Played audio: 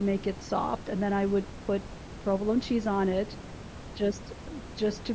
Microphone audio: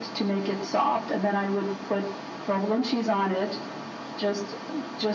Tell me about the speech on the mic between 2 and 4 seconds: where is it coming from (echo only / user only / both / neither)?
echo only